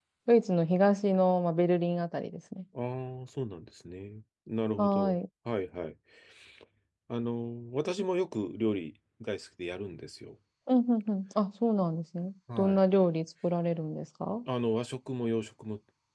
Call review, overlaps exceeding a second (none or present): none